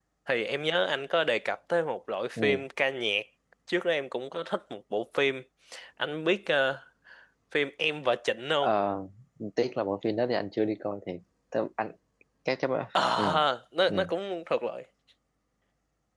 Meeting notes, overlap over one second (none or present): none